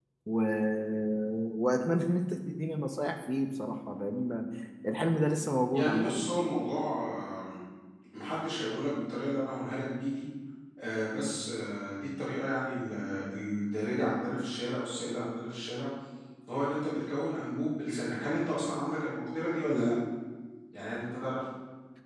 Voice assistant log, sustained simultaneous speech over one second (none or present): none